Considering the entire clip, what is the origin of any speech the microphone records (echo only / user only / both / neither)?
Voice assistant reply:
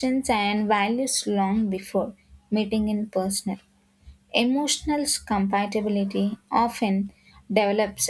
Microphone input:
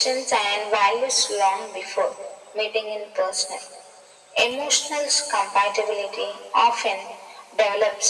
echo only